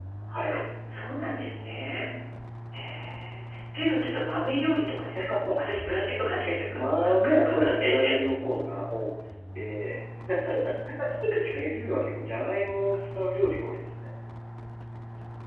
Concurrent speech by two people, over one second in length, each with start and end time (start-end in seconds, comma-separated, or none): 6.7-8.1